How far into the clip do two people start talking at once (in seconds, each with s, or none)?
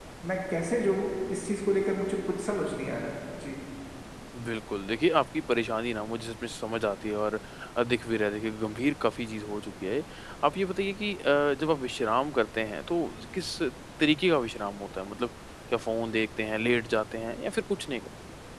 none